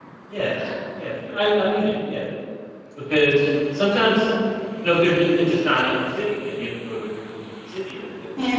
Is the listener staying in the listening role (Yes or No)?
No